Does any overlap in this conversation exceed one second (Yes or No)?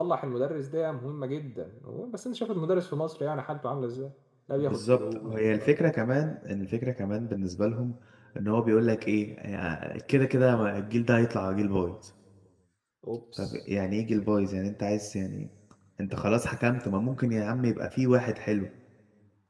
Yes